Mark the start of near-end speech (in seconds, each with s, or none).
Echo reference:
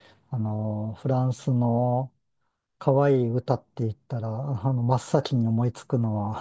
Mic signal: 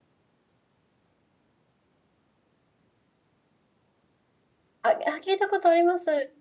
4.8 s